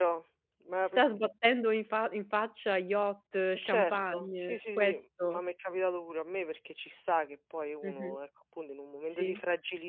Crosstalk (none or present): present